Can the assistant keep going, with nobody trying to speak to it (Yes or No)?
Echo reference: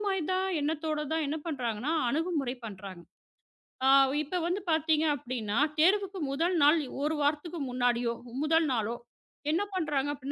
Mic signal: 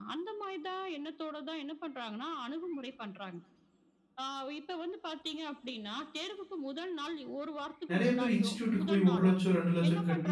No